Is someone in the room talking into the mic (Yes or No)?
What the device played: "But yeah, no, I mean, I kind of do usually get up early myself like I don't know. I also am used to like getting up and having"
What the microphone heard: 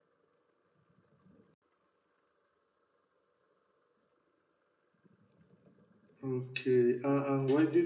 Yes